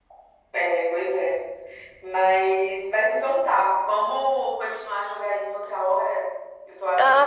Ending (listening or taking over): taking over